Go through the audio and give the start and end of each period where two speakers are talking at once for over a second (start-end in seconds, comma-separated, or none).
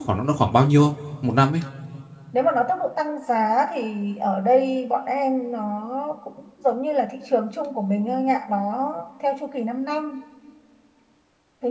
none